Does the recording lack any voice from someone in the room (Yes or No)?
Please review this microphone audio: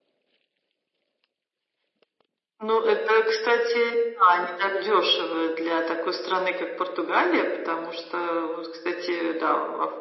Yes